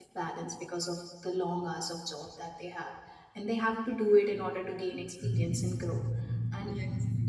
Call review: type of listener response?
listening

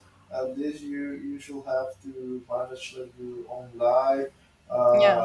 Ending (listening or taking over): listening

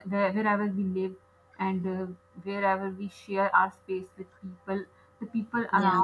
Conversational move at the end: listening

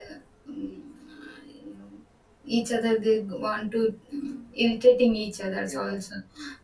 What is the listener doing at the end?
listening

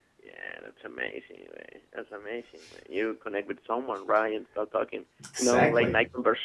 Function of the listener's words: listening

